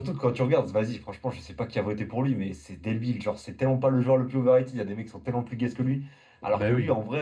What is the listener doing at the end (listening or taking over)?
listening